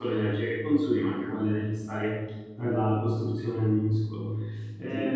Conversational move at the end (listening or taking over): listening